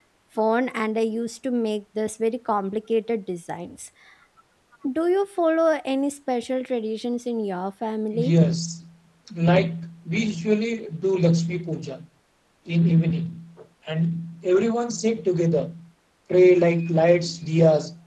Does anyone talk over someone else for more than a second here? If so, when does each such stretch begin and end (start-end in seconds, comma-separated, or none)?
none